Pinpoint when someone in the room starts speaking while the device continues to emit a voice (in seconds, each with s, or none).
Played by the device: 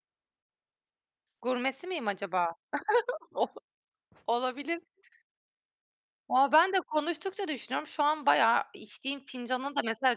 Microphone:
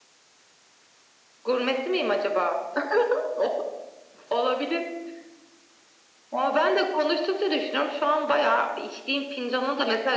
none